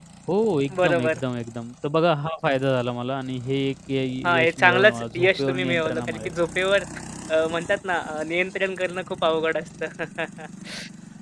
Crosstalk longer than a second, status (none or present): present